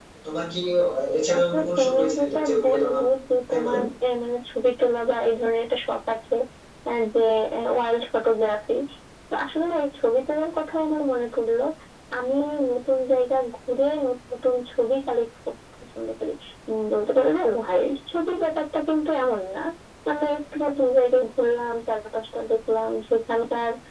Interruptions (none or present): present